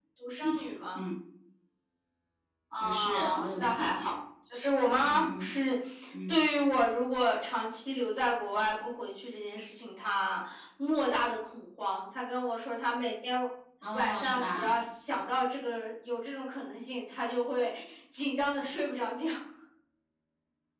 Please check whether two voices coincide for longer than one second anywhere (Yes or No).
Yes